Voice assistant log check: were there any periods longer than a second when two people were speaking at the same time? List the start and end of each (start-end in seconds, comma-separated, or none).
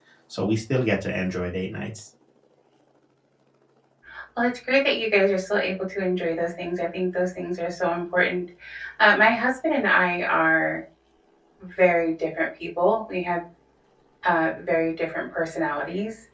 none